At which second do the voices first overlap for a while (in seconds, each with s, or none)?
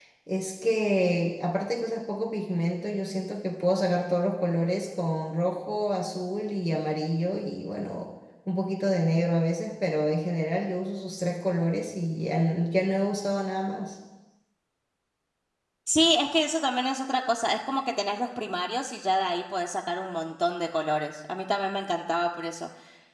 none